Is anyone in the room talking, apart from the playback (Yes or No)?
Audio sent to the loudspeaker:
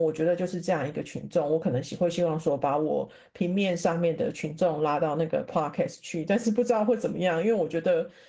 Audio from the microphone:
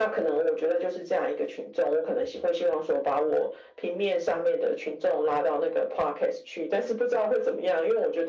No